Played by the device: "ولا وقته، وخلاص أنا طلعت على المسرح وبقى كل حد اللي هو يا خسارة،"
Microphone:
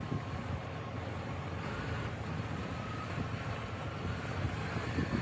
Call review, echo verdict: none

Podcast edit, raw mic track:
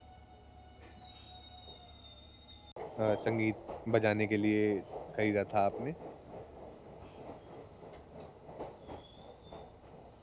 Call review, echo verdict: none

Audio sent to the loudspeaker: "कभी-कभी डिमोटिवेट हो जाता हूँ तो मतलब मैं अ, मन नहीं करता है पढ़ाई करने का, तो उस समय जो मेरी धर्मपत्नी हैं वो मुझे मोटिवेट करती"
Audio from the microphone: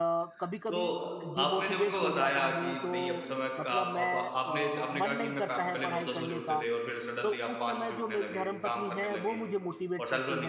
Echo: present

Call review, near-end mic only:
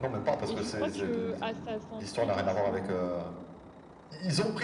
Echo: present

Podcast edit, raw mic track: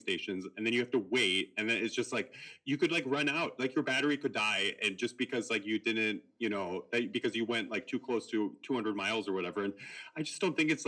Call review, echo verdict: present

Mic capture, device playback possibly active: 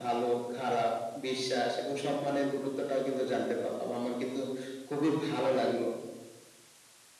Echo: present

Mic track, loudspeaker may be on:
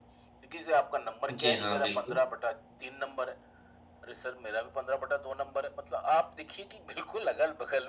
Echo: present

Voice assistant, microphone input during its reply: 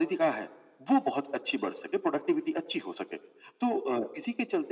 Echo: present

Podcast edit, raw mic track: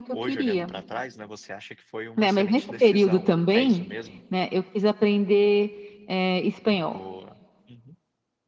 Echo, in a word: present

